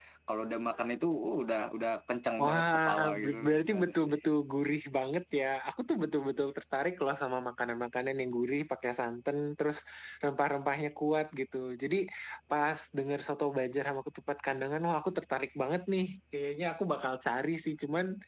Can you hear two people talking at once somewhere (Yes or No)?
Yes